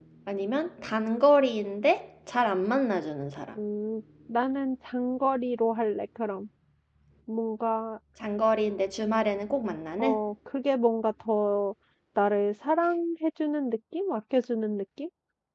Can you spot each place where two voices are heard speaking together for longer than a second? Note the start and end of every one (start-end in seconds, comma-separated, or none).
none